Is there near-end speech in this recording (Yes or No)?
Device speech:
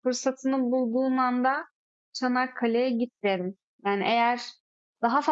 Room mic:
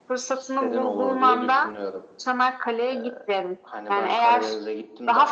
Yes